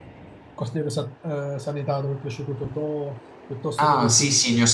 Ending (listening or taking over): taking over